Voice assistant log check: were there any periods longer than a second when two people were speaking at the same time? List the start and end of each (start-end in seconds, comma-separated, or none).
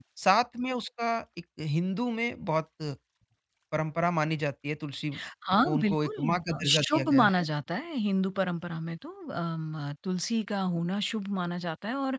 5.7-7.4